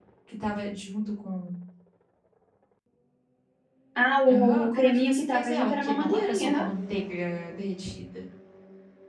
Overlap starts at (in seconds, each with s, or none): 4.3 s